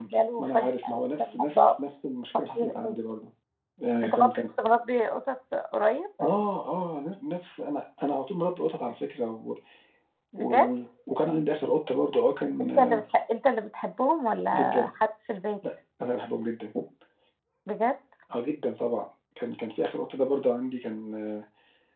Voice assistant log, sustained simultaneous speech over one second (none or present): present